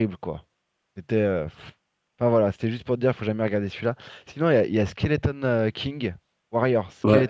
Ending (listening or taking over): taking over